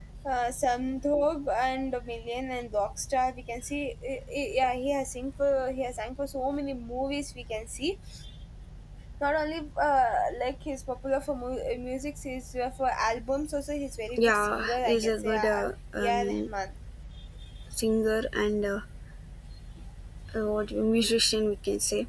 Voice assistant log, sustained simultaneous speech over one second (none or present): present